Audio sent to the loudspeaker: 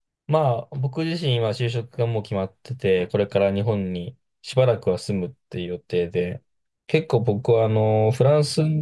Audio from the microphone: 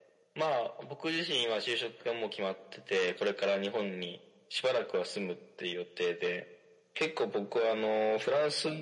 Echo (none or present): present